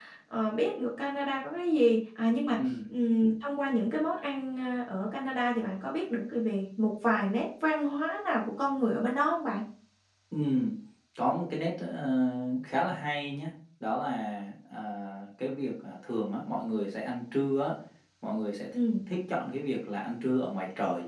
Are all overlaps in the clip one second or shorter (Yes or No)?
Yes